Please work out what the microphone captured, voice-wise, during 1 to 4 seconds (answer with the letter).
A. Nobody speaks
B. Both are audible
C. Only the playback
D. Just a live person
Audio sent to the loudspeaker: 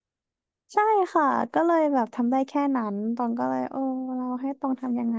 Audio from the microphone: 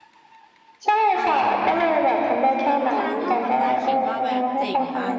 B